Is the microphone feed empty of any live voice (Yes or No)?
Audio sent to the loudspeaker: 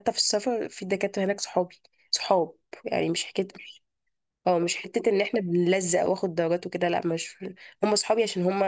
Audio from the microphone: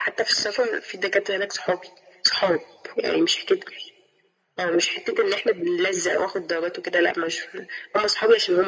Yes